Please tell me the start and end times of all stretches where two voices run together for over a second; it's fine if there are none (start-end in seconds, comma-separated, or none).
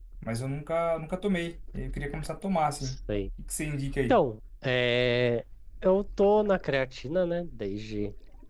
none